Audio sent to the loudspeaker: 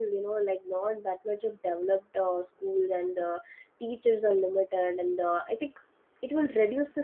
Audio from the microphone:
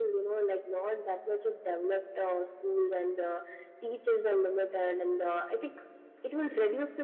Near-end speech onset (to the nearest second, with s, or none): none